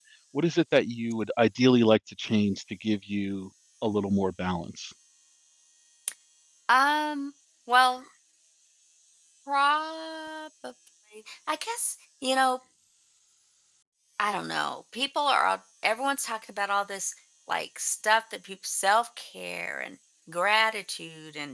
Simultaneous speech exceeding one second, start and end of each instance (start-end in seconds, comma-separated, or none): none